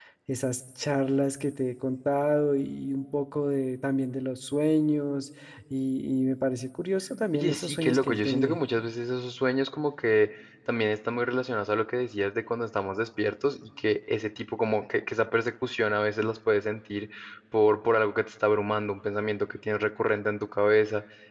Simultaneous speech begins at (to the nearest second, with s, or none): 7 s